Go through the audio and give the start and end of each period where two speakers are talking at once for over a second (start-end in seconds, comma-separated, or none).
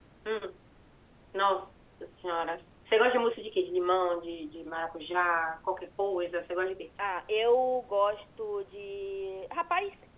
none